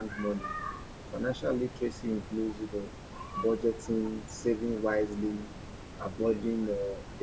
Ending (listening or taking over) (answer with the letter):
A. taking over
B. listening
B